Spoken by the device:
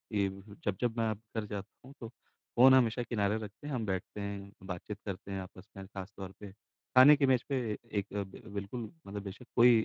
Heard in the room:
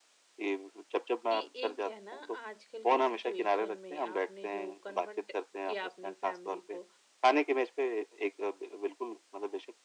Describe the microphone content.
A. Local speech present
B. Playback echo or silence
A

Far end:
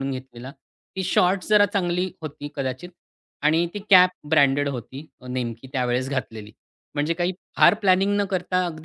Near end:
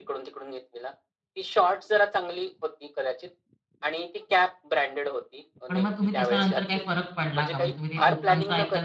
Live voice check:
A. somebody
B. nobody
A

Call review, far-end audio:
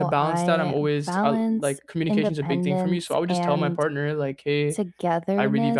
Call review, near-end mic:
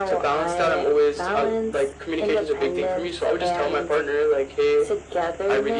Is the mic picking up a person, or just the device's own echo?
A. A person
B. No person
B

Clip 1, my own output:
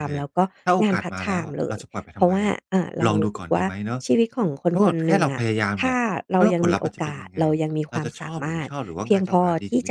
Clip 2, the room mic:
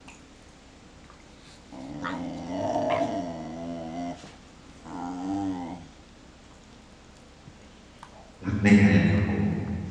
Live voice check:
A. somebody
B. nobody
A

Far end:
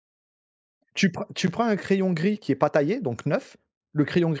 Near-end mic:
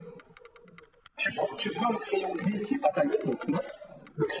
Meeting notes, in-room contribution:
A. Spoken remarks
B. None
B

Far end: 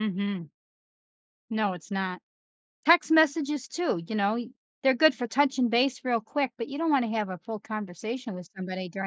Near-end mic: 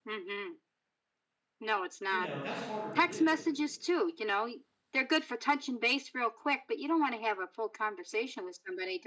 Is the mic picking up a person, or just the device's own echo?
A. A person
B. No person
A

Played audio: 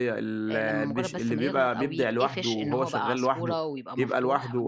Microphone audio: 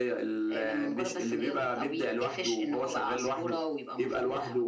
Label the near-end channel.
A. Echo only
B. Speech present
A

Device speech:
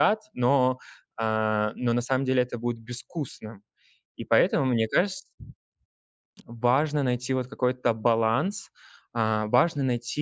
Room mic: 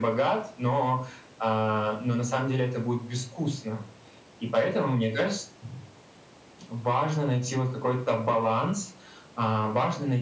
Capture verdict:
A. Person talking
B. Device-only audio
B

